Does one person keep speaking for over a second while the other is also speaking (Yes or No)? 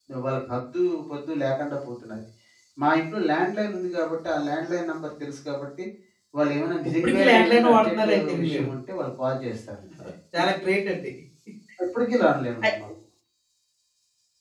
Yes